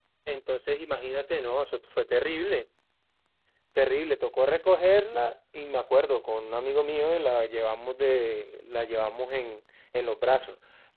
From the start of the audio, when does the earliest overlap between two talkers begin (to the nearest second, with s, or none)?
none